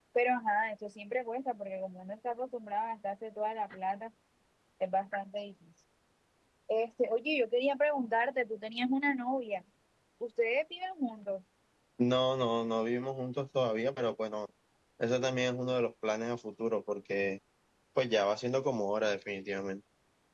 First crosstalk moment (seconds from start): none

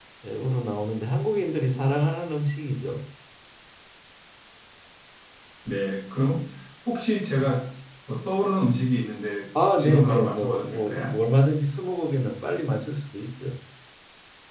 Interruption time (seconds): 10 s

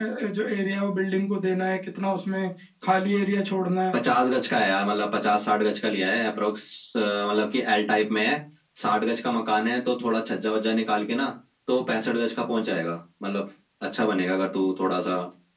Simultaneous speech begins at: none

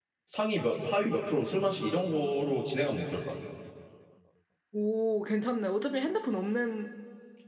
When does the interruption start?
none

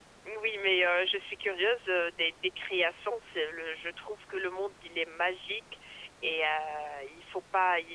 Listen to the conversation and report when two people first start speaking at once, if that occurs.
none

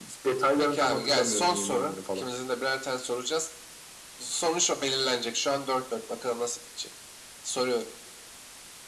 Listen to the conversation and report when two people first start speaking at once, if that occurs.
1 s

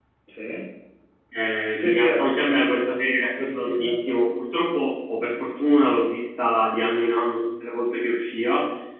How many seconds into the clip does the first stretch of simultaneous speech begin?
2 s

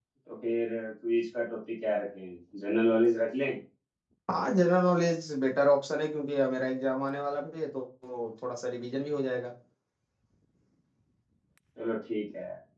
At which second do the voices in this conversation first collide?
none

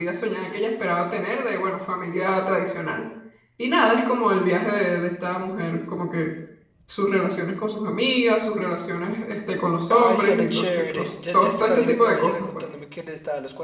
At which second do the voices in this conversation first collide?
10 s

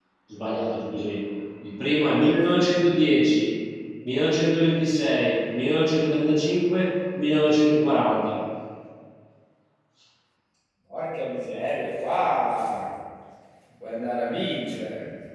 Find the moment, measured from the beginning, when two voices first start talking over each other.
none

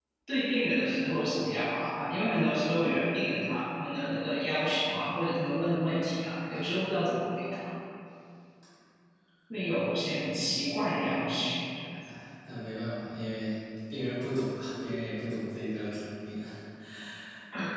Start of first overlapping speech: none

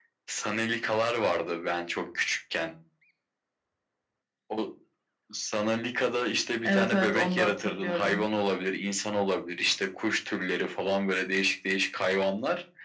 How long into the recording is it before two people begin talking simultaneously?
7 s

